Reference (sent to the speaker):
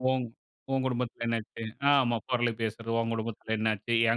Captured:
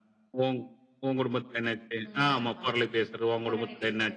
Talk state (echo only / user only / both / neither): both